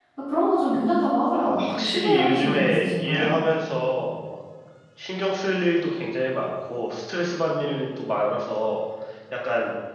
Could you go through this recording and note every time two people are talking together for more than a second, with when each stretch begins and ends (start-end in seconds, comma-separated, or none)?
1.3-3.3